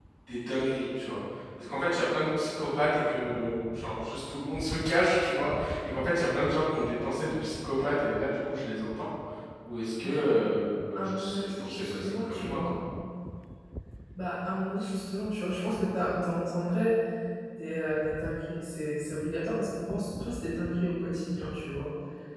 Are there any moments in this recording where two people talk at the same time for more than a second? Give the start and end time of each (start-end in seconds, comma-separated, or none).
10.9-12.7